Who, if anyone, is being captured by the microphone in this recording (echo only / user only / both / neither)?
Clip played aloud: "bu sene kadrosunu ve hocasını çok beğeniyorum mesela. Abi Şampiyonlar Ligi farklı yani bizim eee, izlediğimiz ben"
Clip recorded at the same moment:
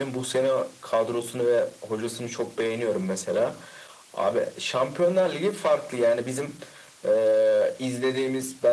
echo only